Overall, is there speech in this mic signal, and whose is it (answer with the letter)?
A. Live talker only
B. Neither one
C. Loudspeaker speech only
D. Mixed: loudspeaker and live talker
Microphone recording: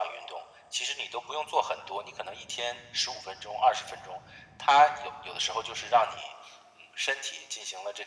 C